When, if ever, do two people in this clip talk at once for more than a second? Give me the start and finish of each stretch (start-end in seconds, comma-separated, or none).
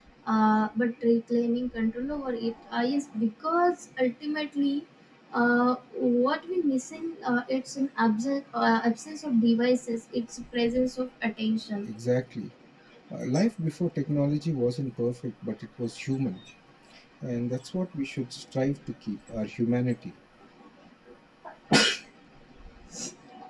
none